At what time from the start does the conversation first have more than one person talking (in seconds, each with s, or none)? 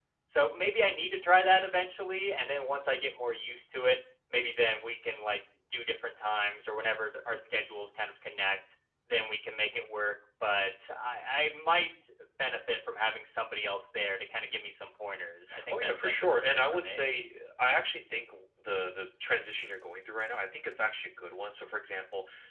15.5 s